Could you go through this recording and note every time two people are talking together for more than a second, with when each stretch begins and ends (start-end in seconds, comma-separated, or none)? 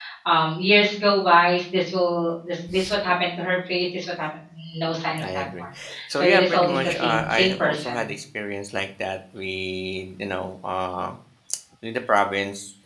6.2-8.1